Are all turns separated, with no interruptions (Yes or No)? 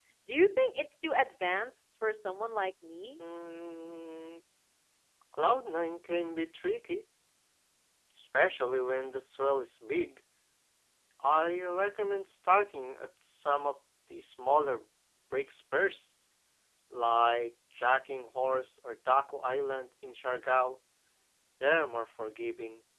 Yes